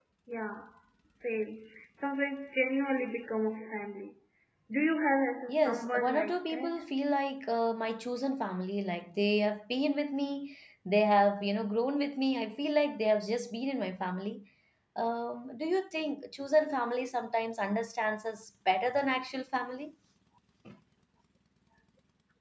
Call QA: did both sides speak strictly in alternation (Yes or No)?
No